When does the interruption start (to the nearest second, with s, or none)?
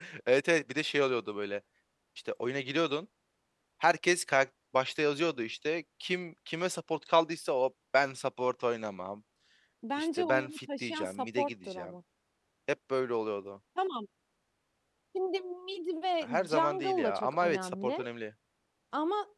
10 s